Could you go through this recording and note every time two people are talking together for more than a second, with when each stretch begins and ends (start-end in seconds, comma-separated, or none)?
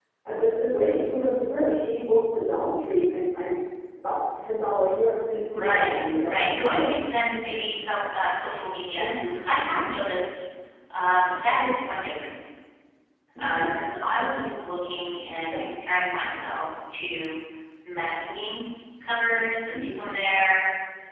5.5-6.9